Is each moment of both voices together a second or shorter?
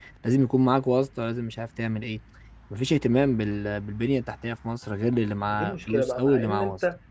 No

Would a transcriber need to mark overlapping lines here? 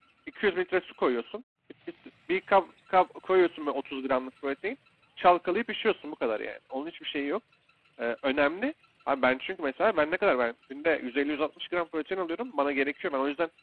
No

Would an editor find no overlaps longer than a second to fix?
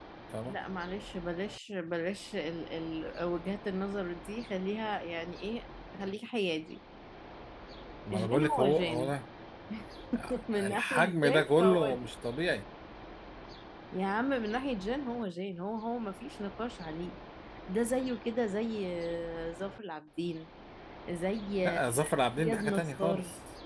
No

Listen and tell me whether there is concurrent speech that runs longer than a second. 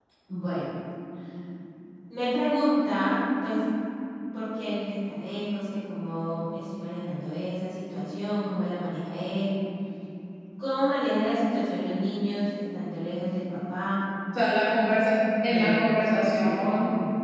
Yes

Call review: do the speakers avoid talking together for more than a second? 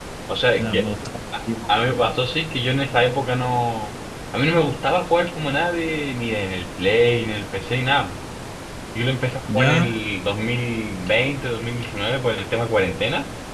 Yes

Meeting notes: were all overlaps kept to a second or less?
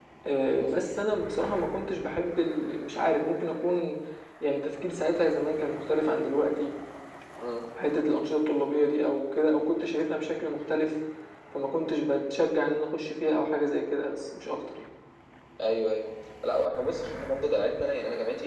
Yes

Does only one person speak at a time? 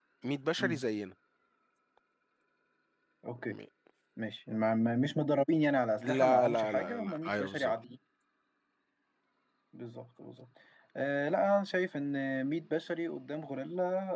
No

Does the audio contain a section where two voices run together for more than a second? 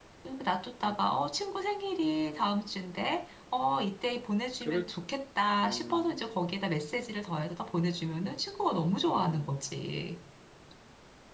No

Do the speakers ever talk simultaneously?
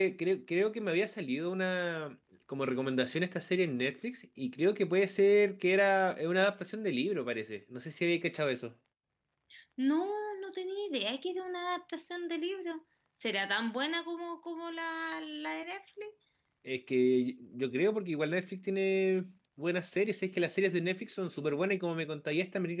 No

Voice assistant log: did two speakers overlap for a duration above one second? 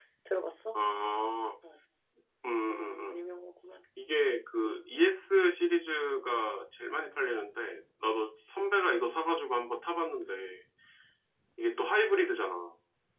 No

